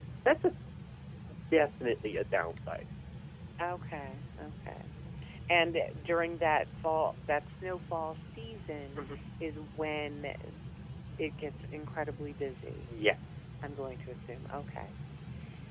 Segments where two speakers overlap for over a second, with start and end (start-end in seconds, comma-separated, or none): none